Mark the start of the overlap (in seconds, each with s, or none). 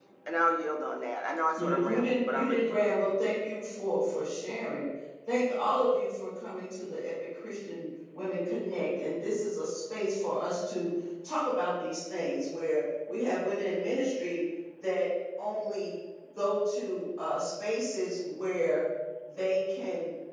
1.6 s